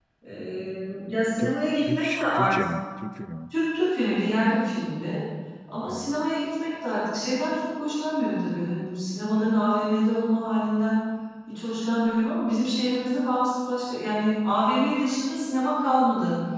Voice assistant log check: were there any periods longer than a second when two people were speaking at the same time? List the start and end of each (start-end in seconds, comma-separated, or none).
1.4-2.7